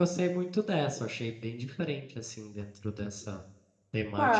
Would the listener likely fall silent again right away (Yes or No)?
No